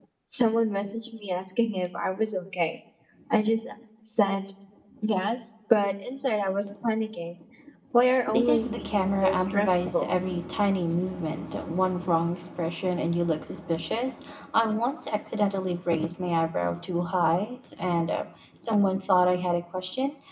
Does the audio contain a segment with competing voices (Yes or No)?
Yes